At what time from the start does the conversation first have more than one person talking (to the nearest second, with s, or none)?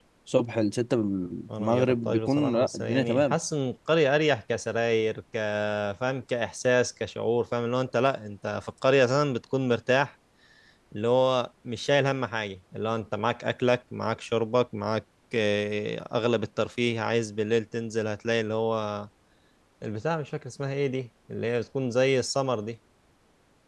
1 s